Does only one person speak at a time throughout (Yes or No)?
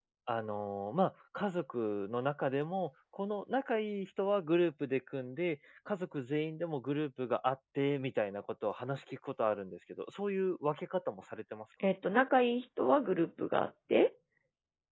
Yes